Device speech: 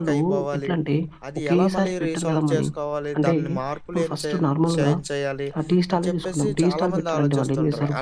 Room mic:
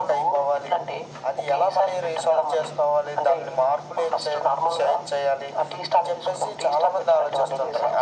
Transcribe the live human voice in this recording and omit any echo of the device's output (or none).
none